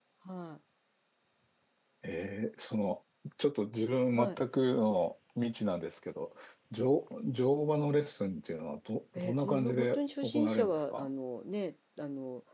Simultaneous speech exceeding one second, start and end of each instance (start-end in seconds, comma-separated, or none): 9.2-11.1